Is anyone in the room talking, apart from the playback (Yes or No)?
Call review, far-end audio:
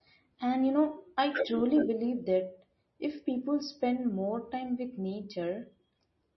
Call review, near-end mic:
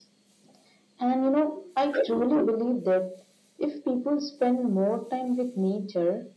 No